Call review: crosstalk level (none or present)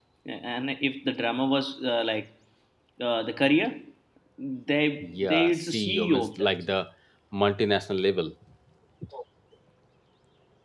present